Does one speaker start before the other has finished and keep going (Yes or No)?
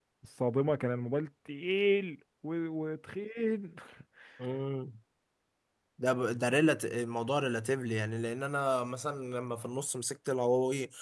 No